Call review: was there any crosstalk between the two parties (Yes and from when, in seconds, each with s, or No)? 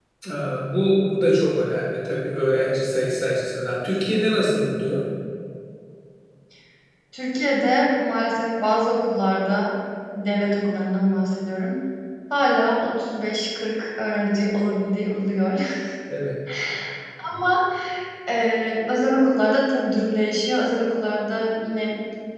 No